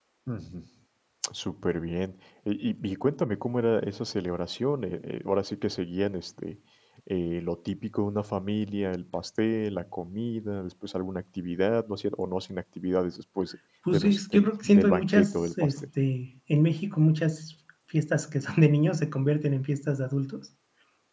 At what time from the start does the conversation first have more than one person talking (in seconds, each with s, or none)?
13.9 s